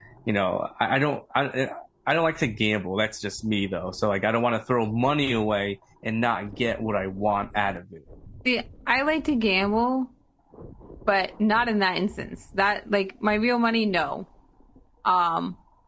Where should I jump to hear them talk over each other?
none

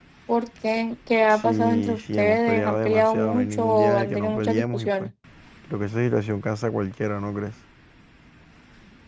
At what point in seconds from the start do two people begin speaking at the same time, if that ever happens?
1.3 s

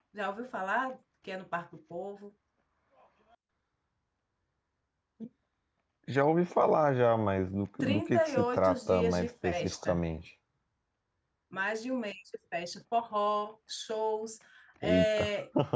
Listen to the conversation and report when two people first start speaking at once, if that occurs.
7.8 s

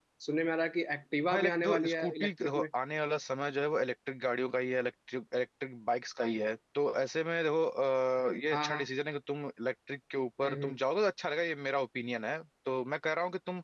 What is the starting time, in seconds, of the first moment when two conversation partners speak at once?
1.3 s

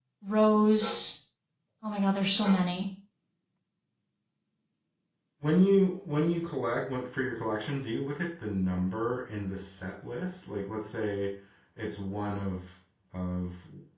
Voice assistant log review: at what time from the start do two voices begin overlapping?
none

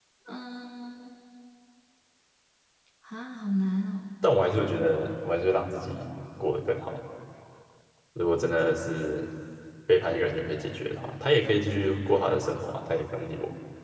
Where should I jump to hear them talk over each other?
none

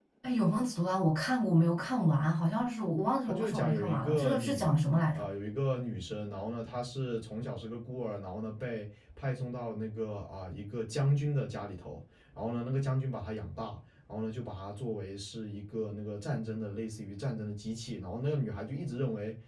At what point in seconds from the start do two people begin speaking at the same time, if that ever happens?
3.3 s

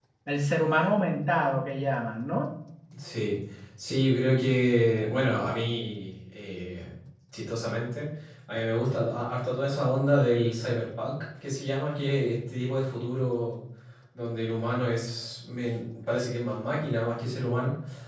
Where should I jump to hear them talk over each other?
none

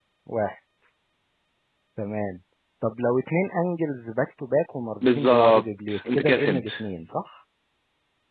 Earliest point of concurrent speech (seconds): 5.0 s

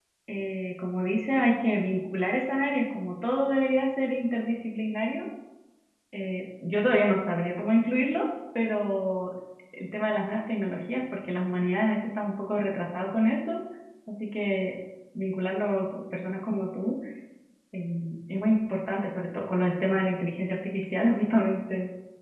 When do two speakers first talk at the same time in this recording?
none

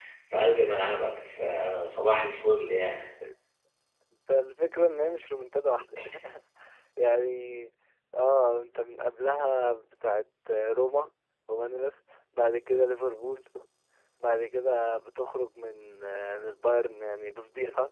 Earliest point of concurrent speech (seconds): none

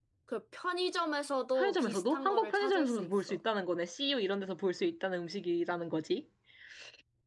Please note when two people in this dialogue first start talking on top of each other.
1.6 s

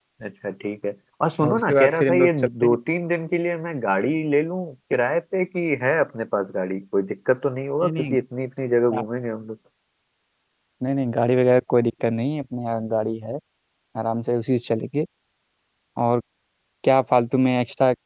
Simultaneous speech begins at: 1.4 s

